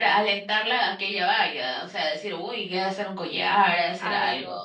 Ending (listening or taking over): taking over